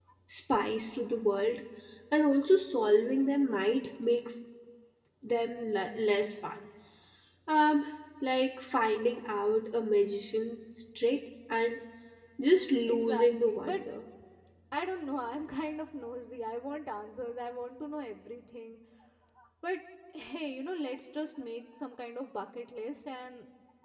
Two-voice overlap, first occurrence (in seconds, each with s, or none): 12.5 s